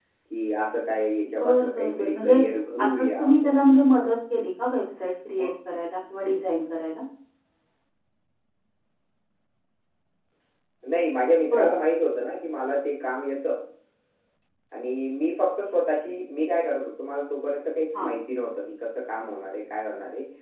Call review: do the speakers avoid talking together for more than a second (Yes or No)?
No